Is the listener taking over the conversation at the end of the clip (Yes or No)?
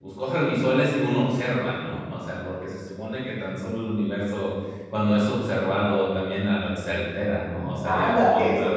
Yes